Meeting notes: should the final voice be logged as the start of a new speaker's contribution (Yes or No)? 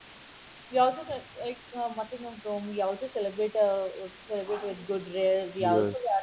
No